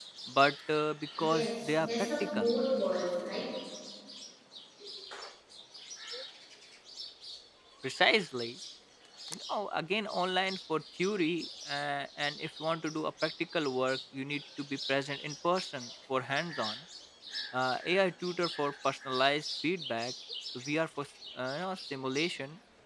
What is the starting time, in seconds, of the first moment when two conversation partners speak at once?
1.2 s

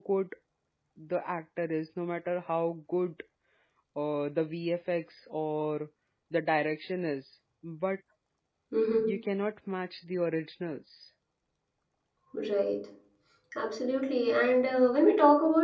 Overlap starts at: none

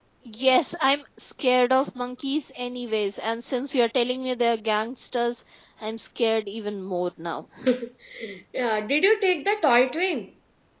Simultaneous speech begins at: none

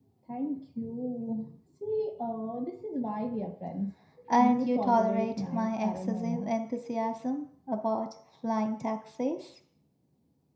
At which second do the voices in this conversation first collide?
4.4 s

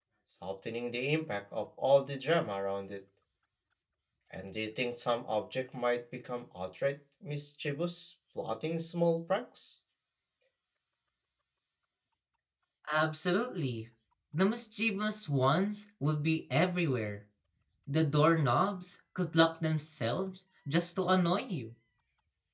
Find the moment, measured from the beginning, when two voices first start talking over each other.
none

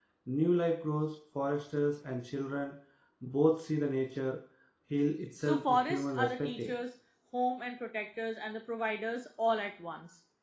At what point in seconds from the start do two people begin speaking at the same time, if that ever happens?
5.4 s

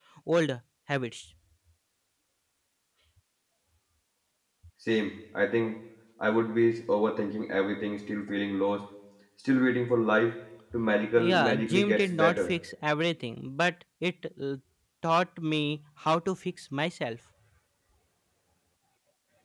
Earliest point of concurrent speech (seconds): 11.2 s

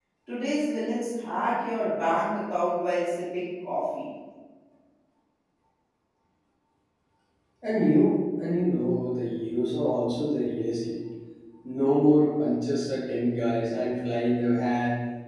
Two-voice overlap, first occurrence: none

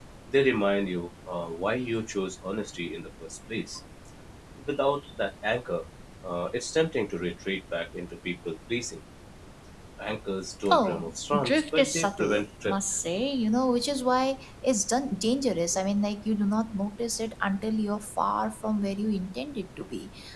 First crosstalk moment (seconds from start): 10.7 s

